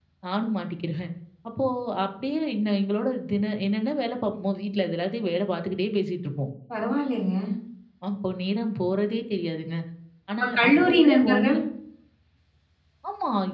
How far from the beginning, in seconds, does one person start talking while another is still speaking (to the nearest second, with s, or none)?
10 s